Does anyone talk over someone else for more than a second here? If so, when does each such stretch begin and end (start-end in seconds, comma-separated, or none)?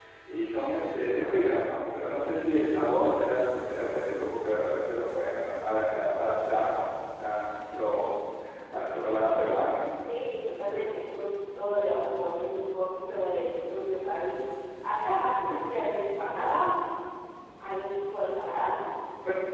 none